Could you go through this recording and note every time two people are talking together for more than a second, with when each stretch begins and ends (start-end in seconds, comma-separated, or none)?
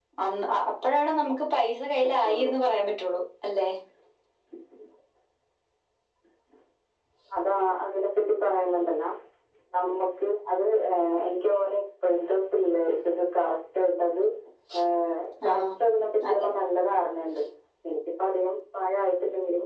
none